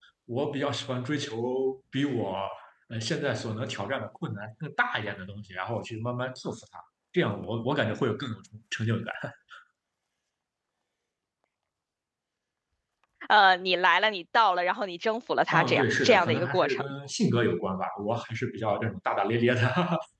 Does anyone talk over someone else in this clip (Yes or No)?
Yes